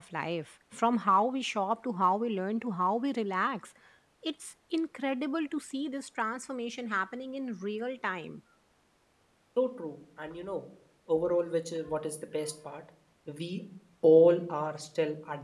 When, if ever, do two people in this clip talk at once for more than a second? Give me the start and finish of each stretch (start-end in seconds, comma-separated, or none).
none